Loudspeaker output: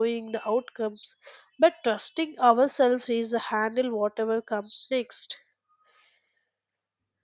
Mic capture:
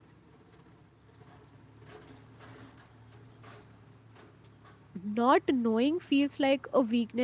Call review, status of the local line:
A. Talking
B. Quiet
A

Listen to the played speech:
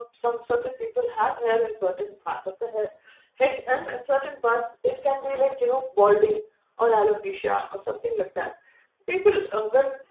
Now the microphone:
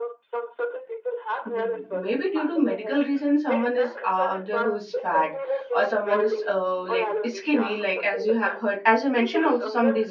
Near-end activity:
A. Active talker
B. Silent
A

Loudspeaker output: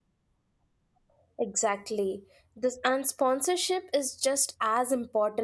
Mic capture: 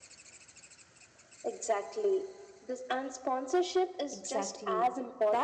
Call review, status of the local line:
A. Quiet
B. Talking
B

